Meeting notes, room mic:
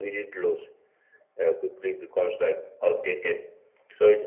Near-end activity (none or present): none